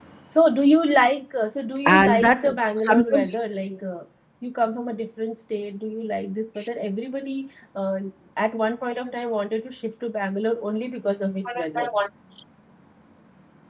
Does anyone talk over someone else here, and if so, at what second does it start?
1.9 s

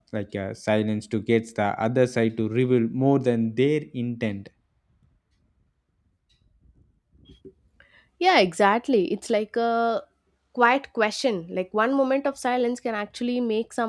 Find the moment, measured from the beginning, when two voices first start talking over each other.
none

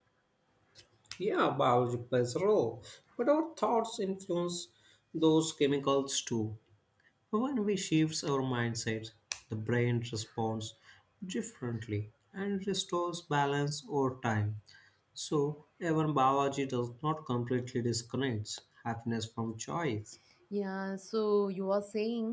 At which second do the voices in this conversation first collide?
none

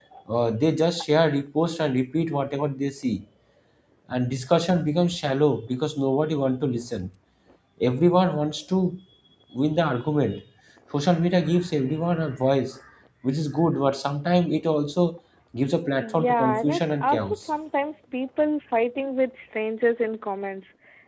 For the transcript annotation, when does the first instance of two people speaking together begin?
16.0 s

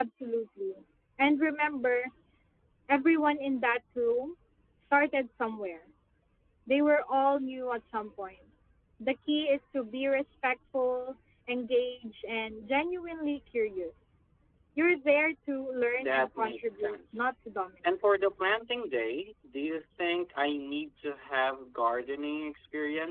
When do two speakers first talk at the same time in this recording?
16.0 s

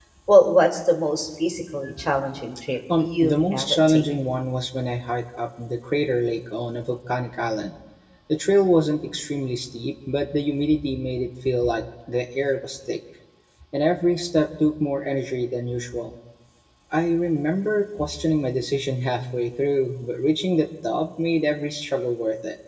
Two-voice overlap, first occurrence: 2.9 s

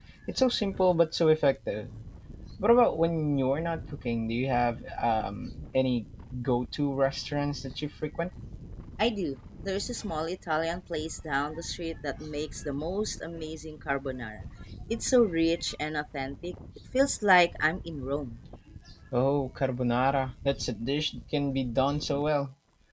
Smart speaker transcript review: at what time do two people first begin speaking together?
none

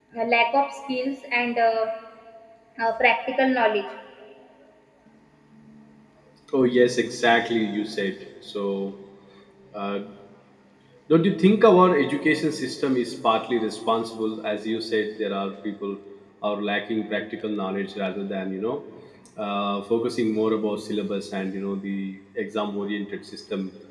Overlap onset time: none

